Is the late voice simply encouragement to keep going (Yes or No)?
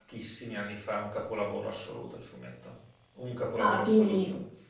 No